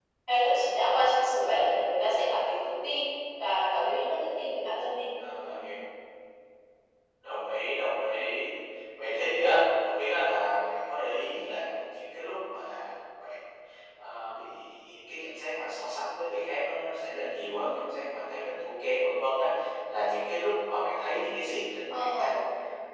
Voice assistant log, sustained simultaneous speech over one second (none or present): none